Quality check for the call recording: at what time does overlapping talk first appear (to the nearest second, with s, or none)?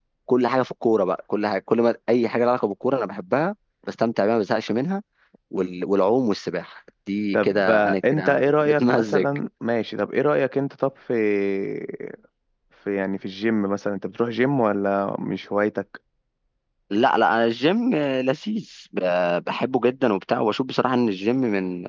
7 s